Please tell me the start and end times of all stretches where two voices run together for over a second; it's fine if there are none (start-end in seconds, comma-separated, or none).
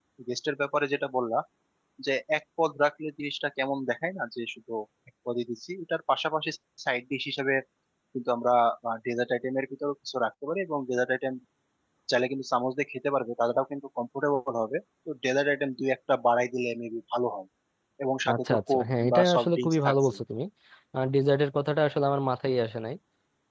18.3-20.1